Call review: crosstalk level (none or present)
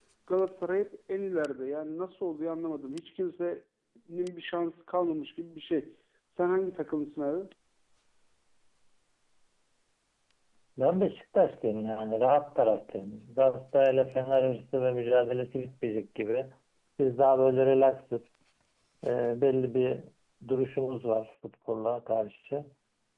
none